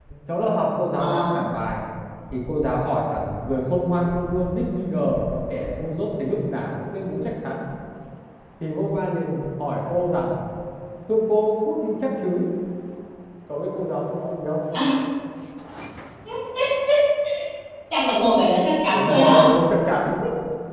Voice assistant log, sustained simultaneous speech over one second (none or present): none